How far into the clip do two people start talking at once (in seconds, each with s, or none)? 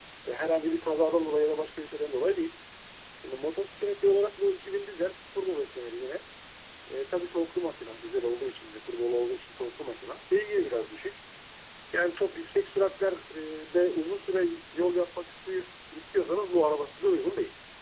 none